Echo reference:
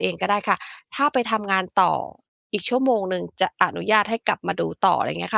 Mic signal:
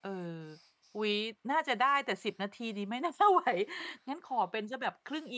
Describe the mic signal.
user only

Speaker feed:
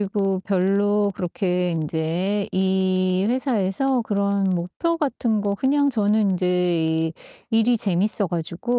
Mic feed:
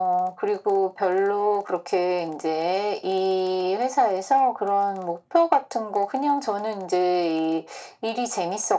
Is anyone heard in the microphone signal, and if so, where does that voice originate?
echo only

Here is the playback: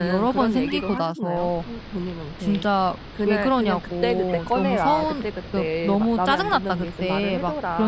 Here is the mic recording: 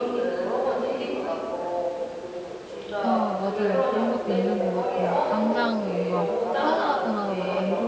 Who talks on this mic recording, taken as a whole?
both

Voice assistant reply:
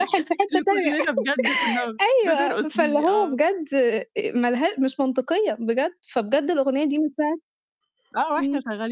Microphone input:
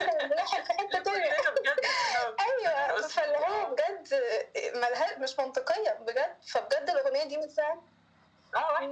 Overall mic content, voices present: echo only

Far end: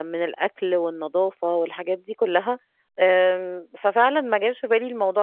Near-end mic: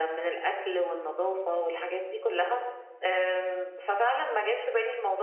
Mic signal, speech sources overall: echo only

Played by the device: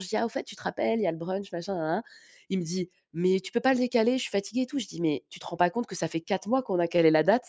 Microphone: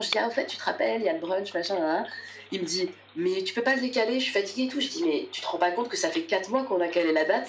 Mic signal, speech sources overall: echo only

